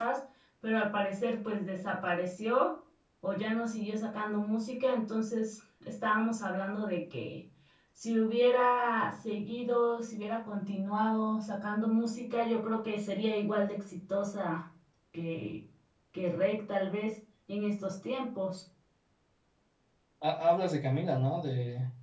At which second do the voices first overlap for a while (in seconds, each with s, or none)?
none